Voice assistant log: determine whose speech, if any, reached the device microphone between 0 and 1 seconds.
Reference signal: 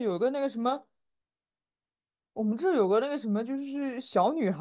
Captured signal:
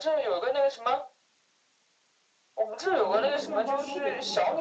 echo only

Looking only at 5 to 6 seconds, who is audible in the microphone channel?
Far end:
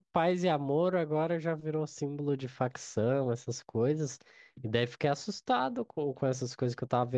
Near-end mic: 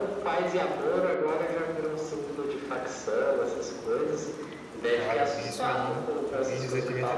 both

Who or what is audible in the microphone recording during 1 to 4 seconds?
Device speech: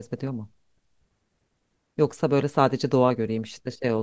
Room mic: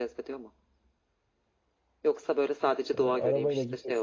both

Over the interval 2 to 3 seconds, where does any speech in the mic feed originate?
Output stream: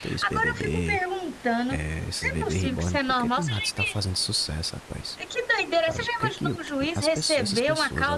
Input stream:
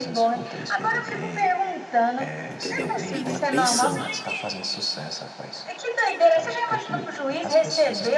both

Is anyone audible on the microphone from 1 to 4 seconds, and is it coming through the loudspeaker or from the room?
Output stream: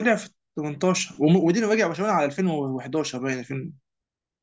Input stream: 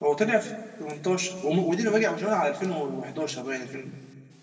echo only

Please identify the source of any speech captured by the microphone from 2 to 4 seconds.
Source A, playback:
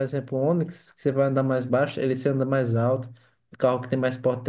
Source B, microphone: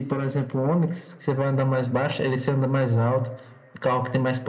echo only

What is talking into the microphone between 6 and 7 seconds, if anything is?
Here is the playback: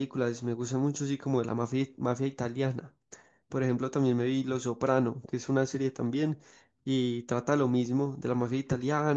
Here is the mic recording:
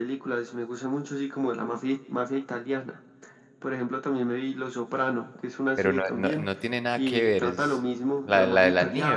both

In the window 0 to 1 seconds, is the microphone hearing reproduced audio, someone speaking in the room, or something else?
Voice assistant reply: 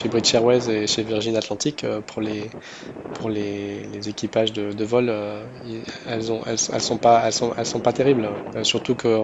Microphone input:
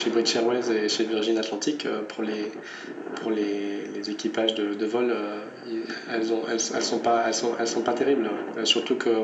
echo only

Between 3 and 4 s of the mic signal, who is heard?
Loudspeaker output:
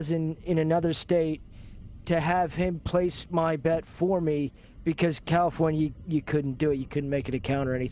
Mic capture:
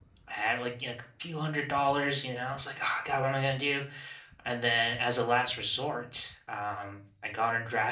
user only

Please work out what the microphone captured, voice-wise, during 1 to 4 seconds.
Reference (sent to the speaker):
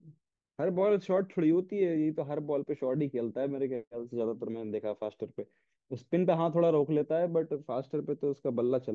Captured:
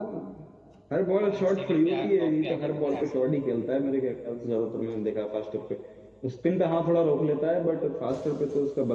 both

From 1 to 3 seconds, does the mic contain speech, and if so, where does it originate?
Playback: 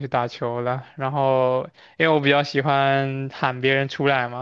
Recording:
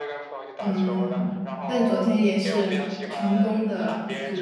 both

